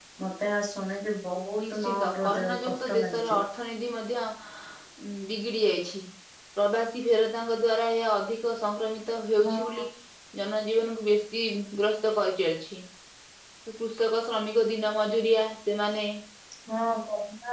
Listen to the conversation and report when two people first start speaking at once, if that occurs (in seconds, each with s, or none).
1.6 s